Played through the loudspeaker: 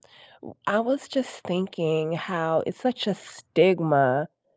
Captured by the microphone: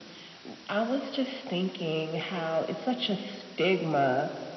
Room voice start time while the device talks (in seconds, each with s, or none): none